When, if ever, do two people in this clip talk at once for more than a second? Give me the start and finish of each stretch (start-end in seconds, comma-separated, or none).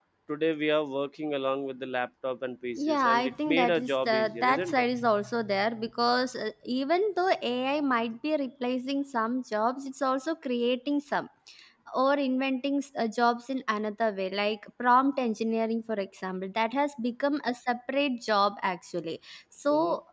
2.7-4.8